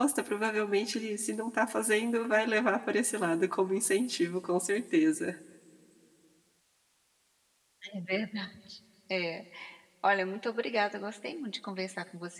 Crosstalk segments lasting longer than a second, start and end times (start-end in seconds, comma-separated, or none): none